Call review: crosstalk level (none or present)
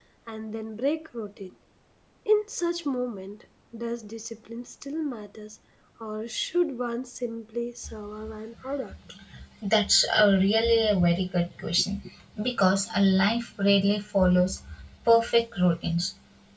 none